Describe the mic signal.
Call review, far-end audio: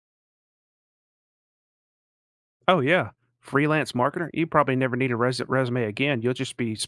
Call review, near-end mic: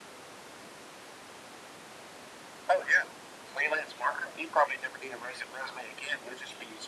echo only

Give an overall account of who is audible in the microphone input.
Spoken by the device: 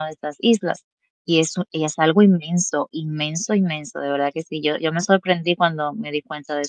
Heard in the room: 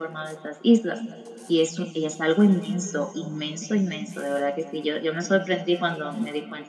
echo only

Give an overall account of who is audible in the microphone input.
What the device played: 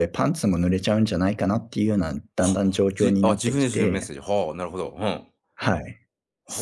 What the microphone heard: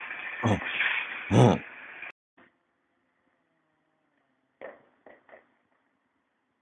user only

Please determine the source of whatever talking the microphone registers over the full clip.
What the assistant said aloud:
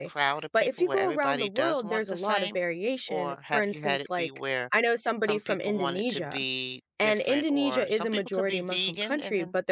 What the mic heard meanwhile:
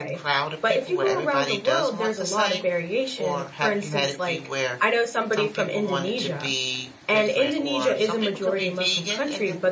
echo only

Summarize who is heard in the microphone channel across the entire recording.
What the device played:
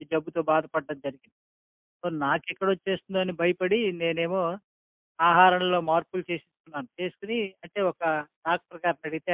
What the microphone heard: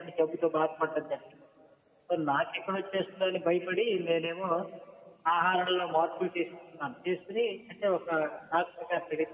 echo only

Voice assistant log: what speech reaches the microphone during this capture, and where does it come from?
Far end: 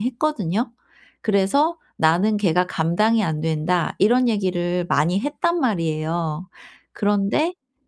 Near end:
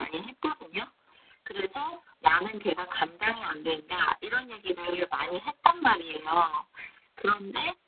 echo only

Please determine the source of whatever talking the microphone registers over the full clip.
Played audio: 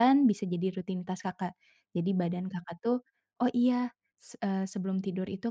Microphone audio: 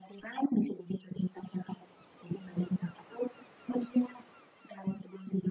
echo only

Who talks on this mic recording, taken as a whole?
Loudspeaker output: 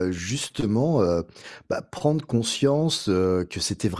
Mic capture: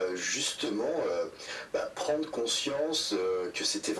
echo only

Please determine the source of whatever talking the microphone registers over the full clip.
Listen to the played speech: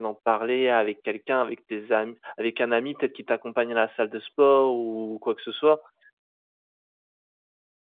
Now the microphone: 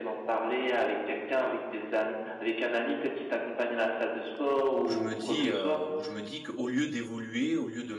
both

